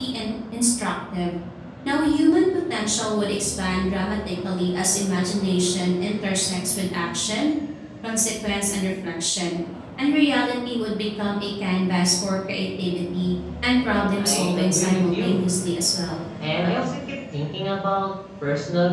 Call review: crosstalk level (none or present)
present